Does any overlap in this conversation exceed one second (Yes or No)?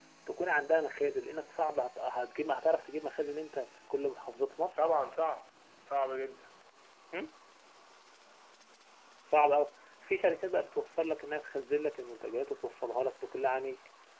No